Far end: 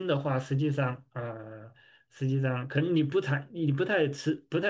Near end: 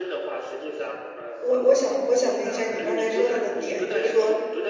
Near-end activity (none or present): present